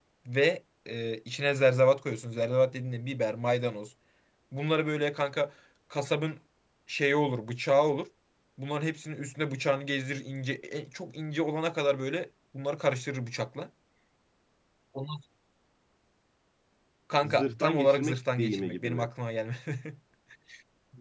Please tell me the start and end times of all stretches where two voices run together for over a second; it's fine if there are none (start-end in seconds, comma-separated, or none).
17.2-19.1